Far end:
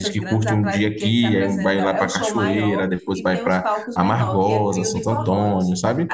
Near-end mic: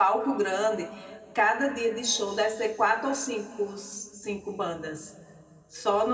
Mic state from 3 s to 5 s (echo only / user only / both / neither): user only